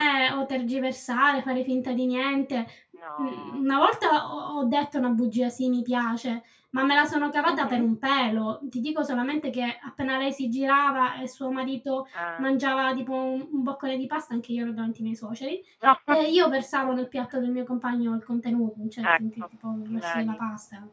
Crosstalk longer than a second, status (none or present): none